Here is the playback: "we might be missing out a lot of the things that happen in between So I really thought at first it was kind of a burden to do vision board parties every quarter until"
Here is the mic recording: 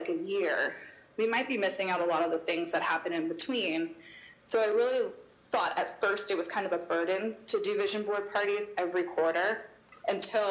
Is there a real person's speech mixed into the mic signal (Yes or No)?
No